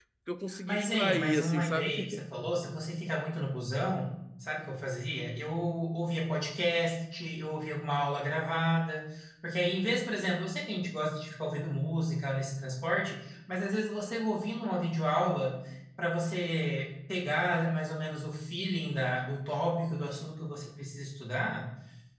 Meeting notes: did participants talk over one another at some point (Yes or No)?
Yes